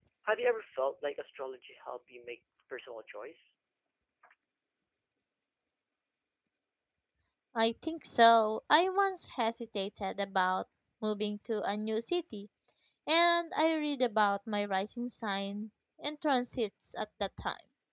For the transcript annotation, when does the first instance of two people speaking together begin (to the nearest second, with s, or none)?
none